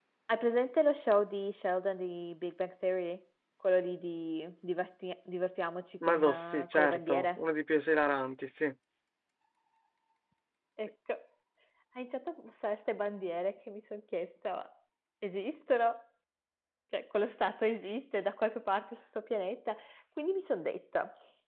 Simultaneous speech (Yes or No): Yes